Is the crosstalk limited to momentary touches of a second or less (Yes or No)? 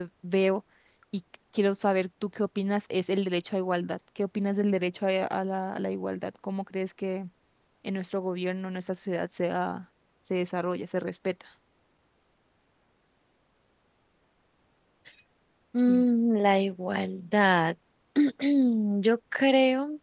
Yes